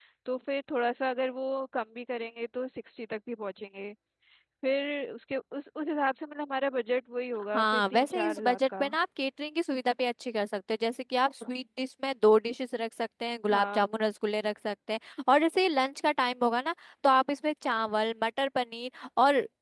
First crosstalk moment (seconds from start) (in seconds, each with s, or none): 7.5 s